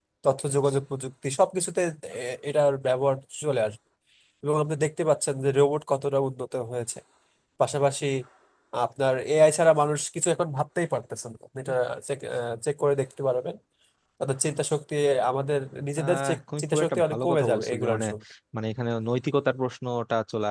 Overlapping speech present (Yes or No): Yes